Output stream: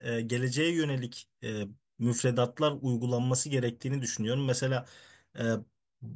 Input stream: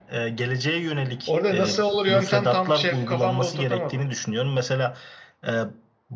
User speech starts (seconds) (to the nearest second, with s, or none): 1 s